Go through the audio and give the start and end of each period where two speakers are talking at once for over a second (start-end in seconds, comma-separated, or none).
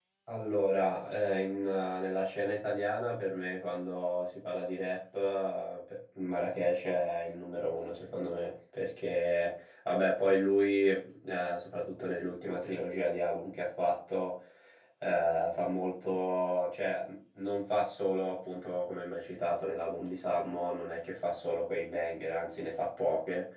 none